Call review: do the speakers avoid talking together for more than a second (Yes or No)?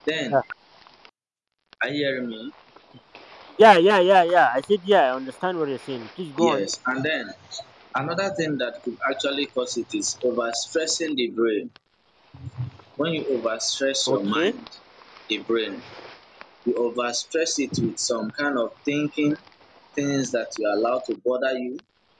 Yes